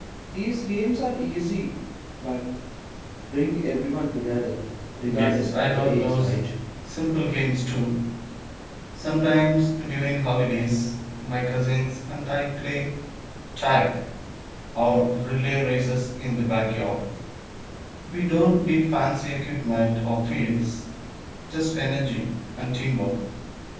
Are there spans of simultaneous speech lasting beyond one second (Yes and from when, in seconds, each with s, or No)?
Yes, from 5.0 s